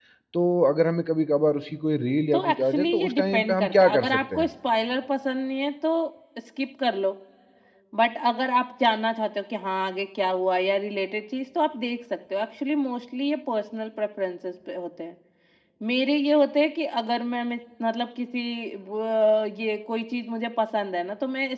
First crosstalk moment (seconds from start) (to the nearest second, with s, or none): 2 s